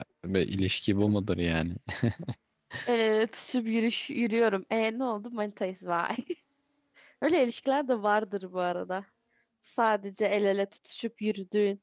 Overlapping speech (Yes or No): No